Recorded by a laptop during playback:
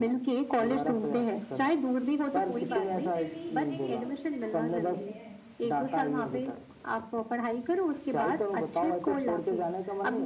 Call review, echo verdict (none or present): present